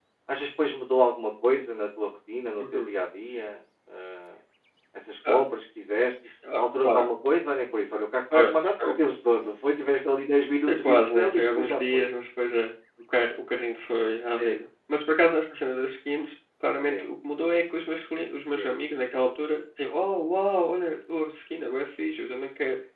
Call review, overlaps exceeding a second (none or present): present